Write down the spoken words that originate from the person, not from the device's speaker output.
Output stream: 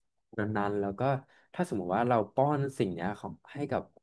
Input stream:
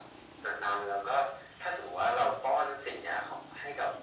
none

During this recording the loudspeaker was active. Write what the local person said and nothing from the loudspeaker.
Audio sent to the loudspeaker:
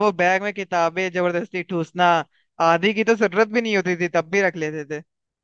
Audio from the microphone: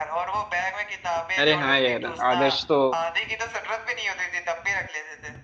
अरे हाँ यार आदर्श तो

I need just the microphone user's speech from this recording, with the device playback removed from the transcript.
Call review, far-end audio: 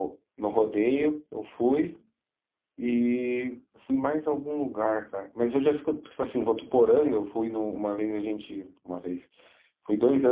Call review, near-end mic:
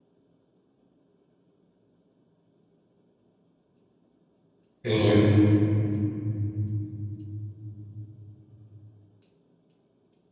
entendi.

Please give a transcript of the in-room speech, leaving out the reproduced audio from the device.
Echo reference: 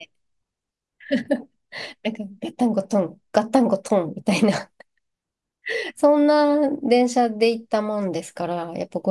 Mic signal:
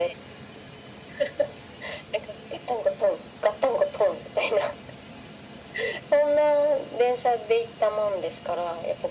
none

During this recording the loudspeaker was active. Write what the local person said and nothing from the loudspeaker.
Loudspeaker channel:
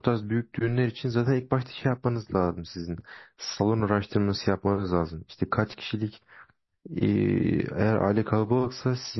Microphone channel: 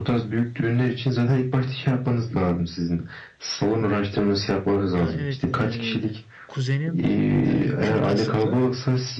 Ya evet, e, kuzenim e, Kürt asıllı

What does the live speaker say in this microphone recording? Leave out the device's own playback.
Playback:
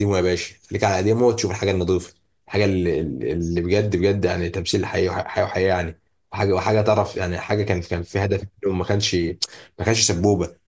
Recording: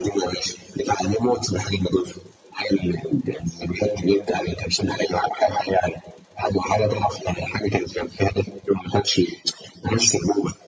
none

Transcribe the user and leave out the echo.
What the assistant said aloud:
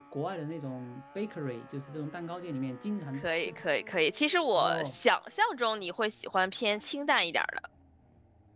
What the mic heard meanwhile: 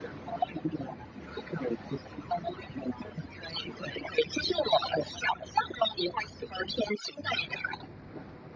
none

